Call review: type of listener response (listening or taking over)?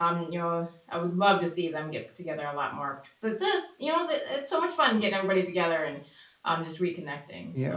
taking over